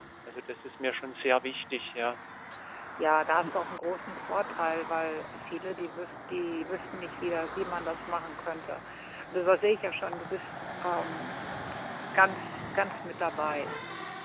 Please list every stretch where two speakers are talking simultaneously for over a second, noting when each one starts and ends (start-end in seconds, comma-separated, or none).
none